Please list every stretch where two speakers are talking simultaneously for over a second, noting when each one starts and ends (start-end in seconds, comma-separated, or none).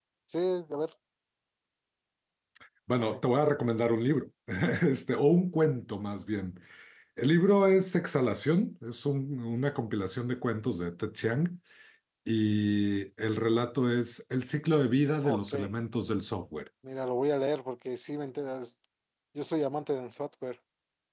none